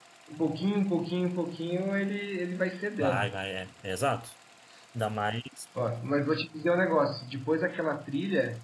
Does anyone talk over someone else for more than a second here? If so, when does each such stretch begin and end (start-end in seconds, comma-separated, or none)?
none